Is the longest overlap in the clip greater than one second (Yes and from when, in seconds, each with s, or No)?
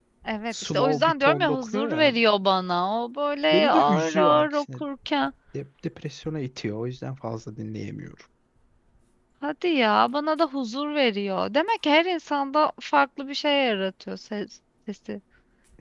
Yes, from 0.5 s